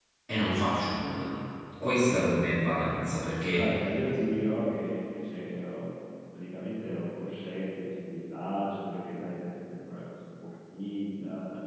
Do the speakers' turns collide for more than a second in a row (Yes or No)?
No